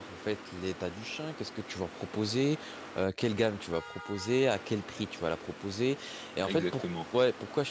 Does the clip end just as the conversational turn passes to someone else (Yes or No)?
No